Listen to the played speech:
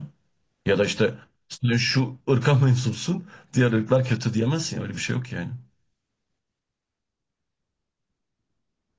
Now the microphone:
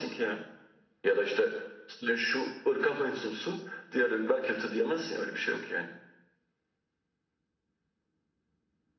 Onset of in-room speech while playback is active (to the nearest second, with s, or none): none